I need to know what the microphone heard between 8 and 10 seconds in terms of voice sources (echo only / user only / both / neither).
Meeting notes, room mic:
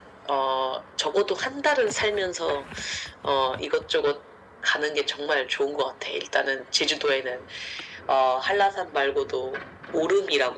echo only